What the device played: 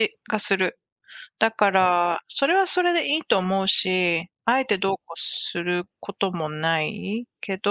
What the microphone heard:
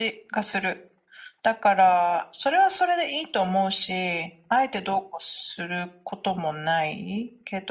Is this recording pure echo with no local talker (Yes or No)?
Yes